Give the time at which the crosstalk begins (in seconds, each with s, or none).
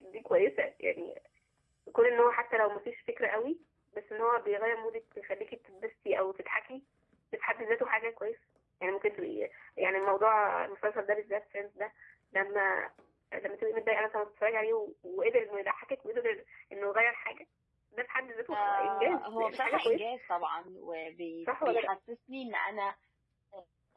18.5 s